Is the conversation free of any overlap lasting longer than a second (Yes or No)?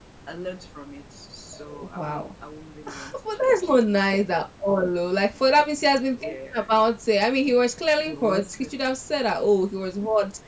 No